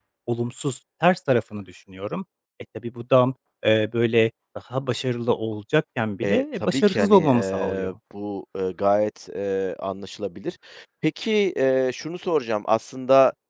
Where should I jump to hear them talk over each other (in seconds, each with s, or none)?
6.2 s